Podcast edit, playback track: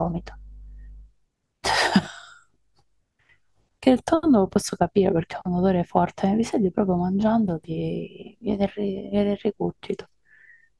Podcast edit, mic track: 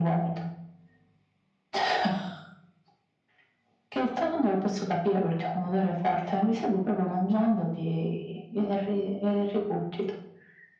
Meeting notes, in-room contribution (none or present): none